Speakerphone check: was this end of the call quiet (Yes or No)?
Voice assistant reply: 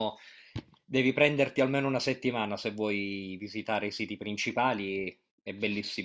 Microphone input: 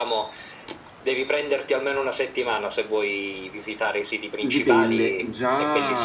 No